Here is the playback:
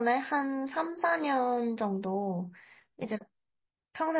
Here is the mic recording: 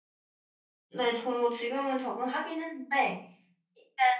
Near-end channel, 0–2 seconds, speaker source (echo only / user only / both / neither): user only